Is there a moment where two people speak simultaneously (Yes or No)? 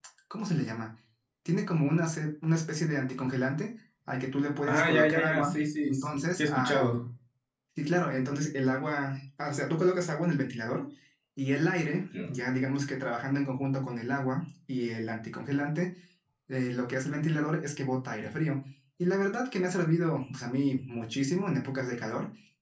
Yes